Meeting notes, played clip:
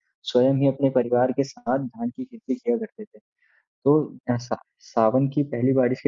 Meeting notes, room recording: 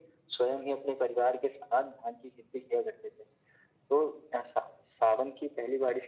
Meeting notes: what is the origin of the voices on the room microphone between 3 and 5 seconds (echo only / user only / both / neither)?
echo only